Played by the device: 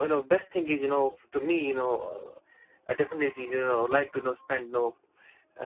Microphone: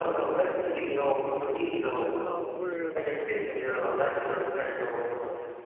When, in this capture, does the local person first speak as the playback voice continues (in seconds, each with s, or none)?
1.8 s